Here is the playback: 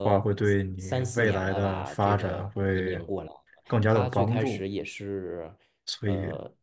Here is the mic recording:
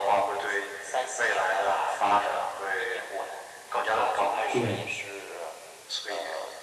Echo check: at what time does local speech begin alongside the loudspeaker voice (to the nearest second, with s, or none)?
5 s